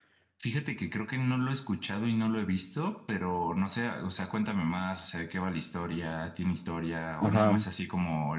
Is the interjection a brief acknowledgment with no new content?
Yes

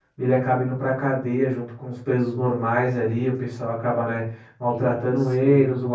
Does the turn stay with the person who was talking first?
Yes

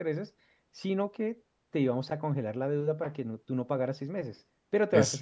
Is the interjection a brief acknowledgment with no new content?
Yes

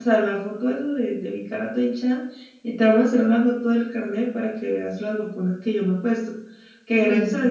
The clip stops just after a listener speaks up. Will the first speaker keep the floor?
Yes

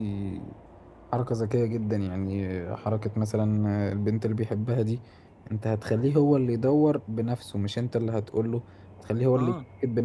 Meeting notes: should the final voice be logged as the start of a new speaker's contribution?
No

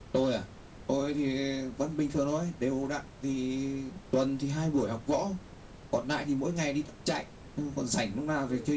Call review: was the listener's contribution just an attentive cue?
Yes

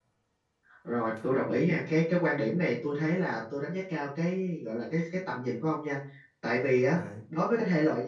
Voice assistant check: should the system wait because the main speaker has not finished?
Yes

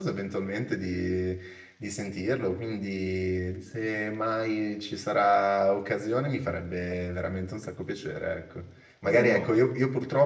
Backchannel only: Yes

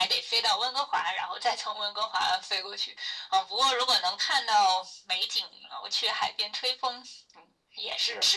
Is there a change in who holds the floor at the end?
Yes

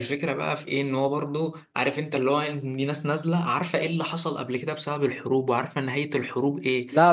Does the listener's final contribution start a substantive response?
No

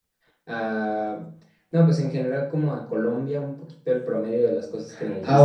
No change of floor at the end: No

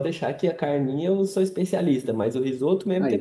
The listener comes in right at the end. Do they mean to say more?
No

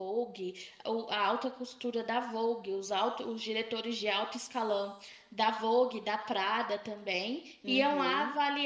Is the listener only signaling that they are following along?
Yes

